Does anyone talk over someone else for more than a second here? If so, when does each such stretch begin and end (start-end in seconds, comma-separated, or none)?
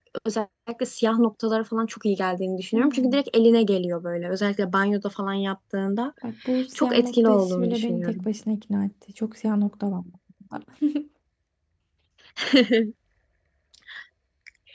6.8-8.3